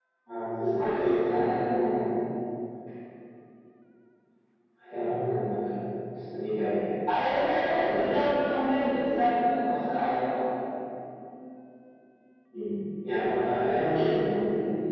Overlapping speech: Yes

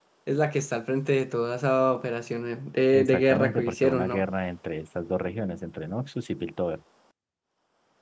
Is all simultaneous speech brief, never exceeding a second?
No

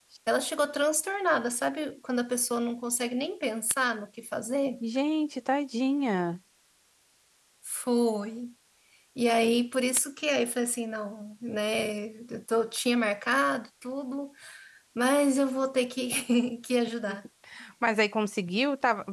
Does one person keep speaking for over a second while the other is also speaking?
No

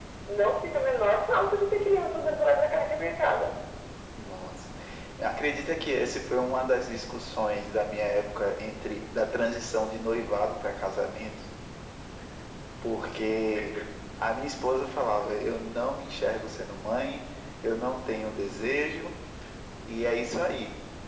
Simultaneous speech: No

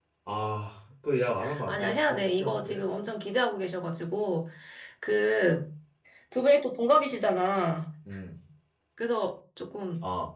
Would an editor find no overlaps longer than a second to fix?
No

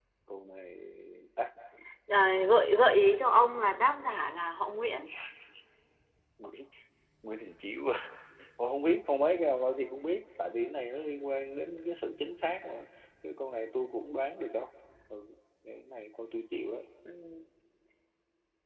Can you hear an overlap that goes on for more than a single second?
No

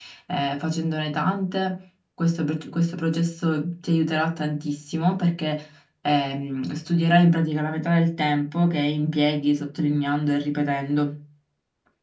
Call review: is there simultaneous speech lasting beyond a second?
No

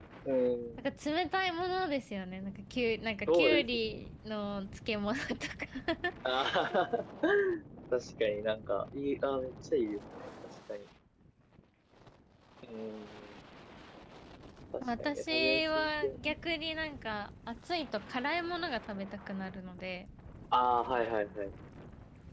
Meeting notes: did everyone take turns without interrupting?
No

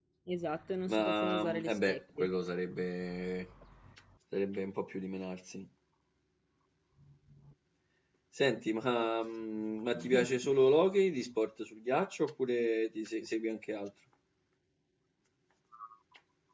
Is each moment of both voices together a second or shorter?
No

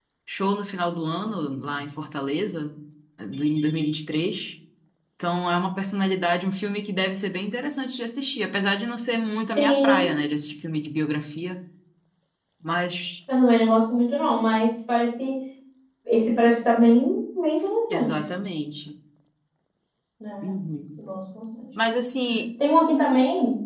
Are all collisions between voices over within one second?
Yes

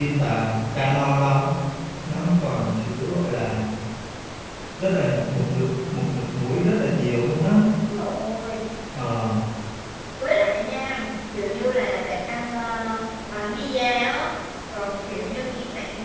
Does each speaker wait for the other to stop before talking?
Yes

